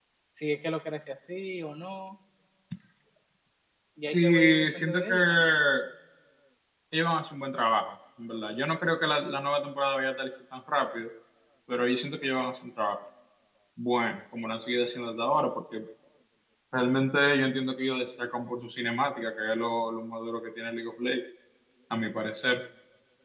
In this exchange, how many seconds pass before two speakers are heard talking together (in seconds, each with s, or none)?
4.1 s